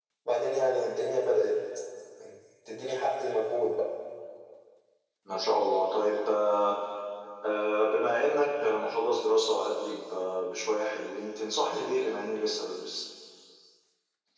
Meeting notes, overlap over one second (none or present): none